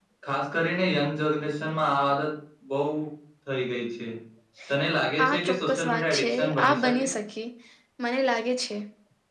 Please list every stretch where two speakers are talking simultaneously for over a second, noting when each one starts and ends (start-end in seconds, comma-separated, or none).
5.2-7.0